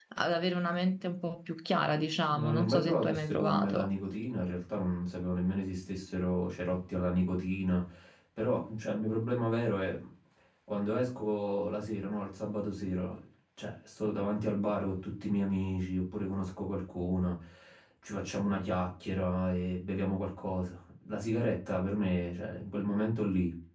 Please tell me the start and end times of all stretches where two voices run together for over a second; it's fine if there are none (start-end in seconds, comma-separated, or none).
2.3-3.9